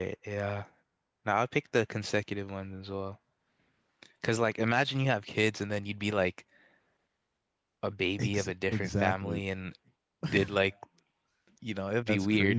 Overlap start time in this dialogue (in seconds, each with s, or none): 8.2 s